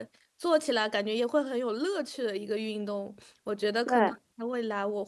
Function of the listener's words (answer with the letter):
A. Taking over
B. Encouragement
B